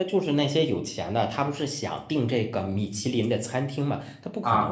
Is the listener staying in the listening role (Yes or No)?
Yes